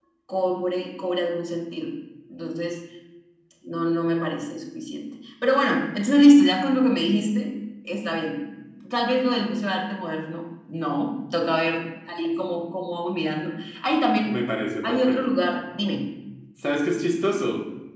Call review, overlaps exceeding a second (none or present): none